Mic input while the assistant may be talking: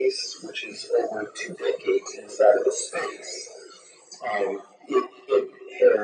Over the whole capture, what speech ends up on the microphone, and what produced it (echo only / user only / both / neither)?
echo only